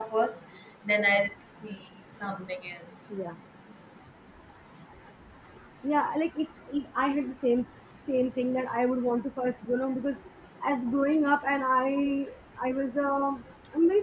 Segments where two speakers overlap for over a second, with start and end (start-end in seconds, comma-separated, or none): none